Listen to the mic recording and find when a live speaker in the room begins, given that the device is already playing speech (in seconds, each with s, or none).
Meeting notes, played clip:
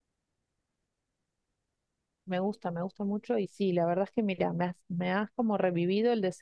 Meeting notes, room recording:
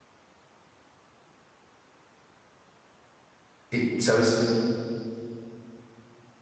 3.7 s